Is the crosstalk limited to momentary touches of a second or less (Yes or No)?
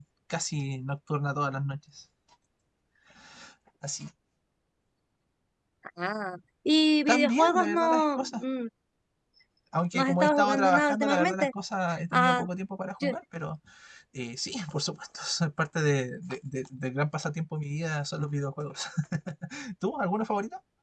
No